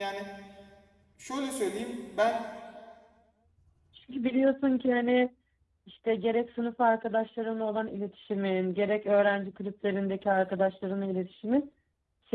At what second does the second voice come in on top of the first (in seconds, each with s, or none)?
none